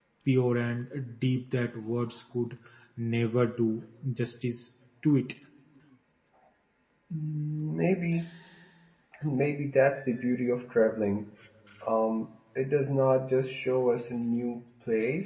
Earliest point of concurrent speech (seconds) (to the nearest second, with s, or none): none